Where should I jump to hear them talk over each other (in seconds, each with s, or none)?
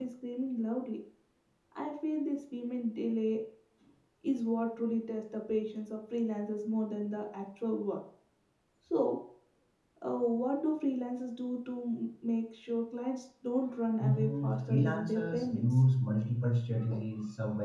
14.0 s